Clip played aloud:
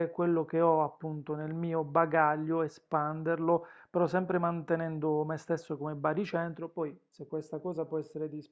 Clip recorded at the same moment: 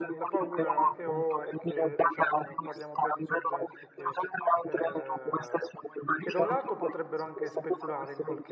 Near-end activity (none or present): present